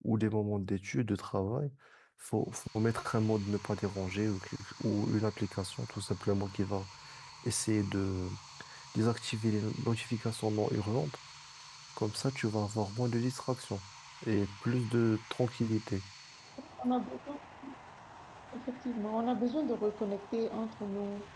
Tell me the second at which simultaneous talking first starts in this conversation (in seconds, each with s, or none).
none